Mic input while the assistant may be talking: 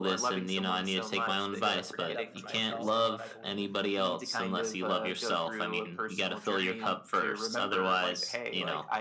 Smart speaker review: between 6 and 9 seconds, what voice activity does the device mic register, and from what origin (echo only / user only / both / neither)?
echo only